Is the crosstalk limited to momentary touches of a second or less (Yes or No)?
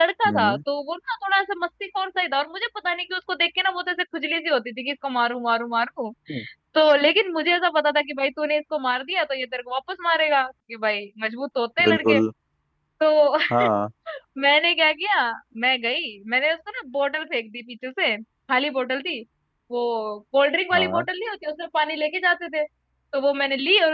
Yes